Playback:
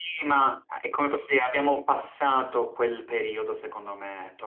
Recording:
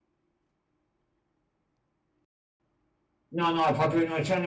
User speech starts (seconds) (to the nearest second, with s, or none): 3 s